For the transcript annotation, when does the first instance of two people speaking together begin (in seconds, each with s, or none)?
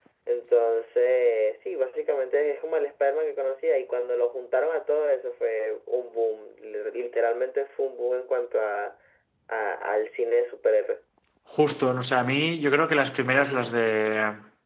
none